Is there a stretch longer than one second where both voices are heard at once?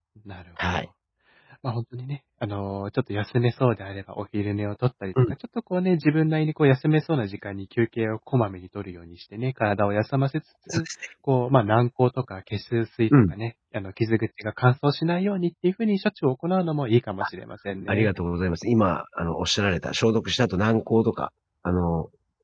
No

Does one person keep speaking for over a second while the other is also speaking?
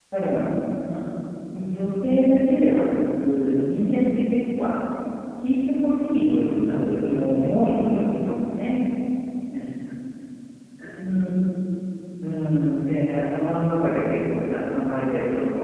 Yes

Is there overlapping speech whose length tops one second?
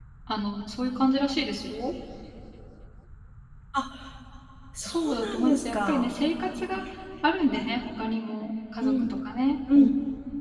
Yes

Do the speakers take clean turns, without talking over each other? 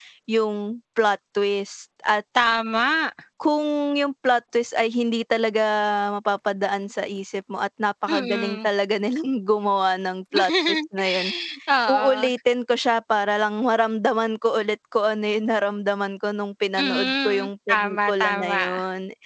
No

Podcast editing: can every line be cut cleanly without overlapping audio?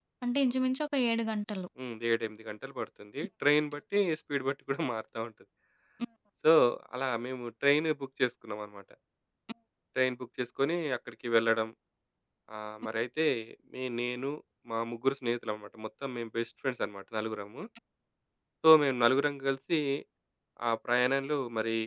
Yes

